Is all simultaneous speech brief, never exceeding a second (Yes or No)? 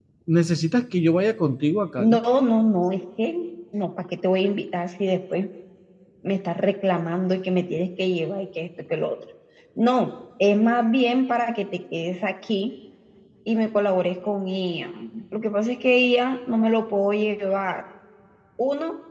Yes